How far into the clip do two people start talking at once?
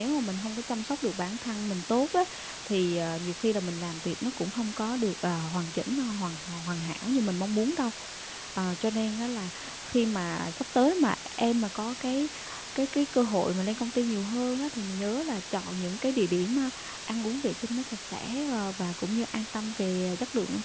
none

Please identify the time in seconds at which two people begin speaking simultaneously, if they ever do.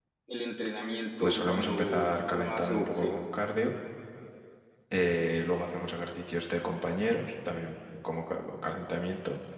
1.2 s

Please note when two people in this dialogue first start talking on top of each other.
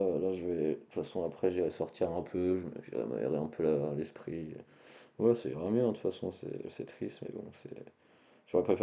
none

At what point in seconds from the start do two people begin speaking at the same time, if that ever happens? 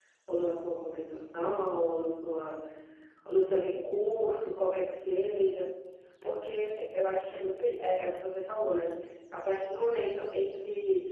none

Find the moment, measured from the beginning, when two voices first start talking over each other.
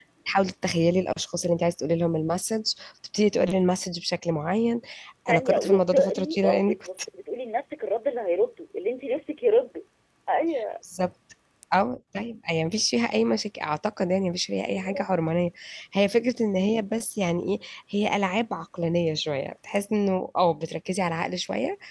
5.3 s

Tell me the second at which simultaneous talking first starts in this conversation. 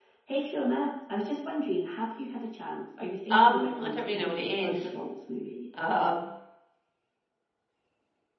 3.3 s

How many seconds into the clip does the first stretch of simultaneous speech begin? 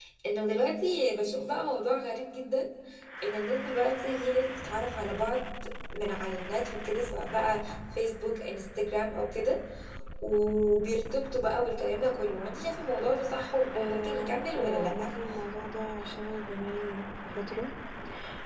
13.7 s

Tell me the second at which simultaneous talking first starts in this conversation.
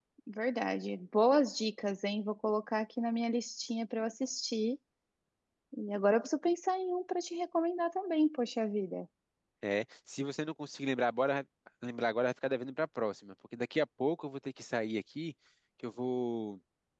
none

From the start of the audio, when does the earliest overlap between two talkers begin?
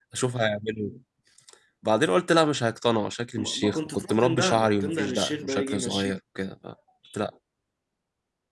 3.4 s

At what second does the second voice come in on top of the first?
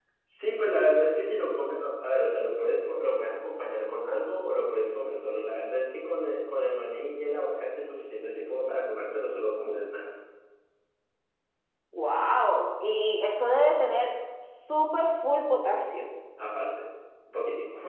none

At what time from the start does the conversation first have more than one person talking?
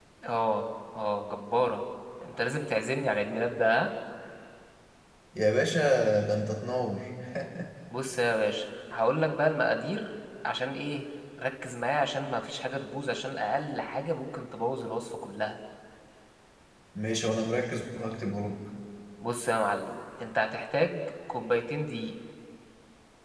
none

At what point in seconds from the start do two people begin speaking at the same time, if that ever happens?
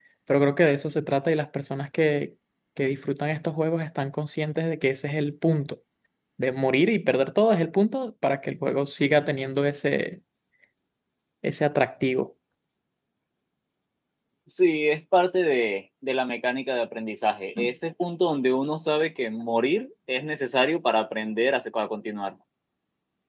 none

